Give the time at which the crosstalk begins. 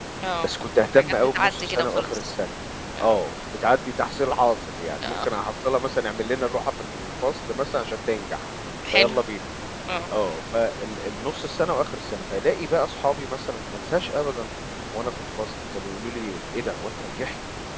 1 s

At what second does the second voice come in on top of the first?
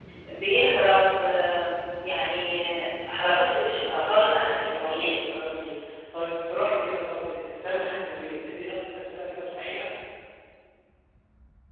4 s

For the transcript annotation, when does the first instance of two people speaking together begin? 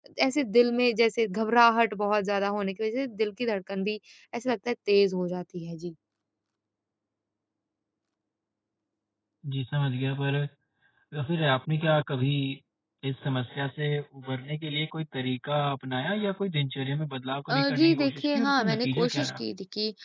17 s

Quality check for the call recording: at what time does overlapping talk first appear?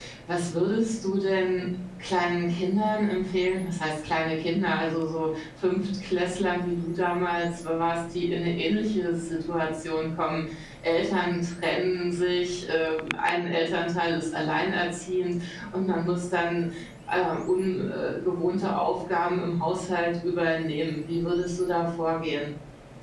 none

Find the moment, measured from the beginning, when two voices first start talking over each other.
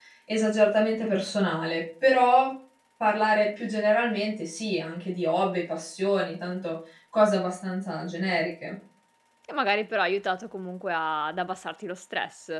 none

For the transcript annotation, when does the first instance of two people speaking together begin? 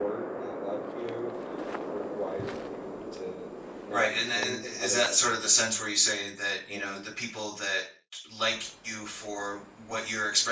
4 s

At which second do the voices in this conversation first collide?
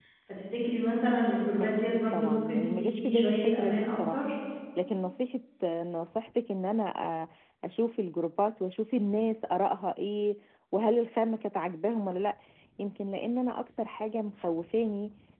2 s

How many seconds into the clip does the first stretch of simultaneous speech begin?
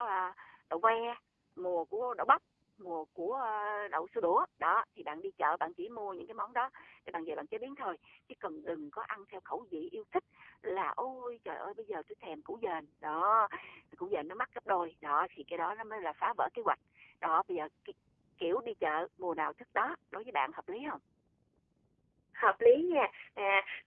none

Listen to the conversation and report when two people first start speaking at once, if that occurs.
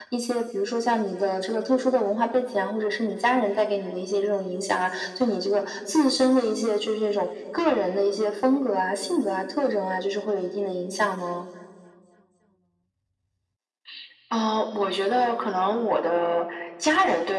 none

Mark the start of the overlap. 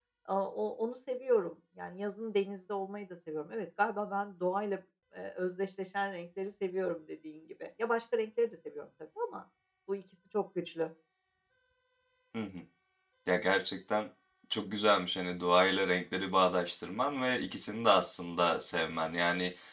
none

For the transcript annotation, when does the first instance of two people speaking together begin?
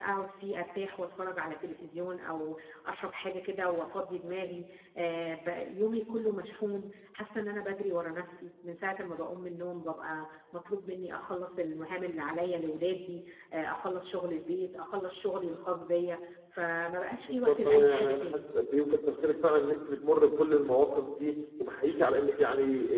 17 s

